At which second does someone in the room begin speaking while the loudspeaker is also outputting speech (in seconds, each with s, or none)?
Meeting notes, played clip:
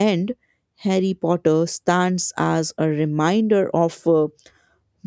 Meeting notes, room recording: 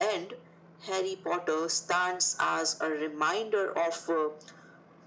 none